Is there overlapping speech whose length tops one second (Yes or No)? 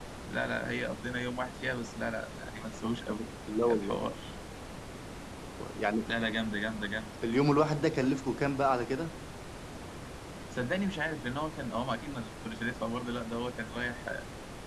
No